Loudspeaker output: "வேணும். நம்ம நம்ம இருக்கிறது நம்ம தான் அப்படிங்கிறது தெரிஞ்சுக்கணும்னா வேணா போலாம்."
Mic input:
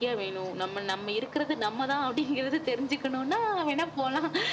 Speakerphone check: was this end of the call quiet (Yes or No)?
Yes